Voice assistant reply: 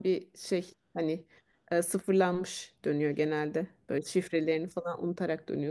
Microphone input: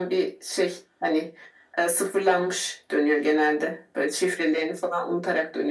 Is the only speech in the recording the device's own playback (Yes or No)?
Yes